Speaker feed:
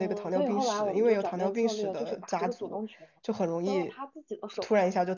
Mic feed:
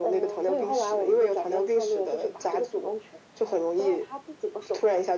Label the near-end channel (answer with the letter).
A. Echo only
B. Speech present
A